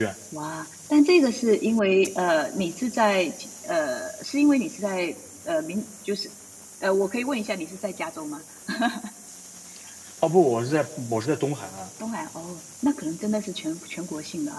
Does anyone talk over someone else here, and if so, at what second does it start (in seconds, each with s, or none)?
none